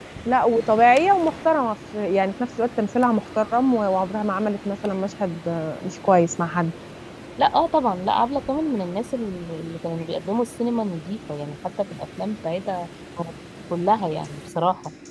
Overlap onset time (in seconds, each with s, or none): none